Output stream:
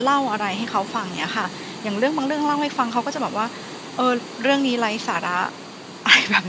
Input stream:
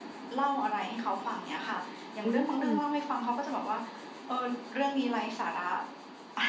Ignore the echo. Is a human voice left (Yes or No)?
Yes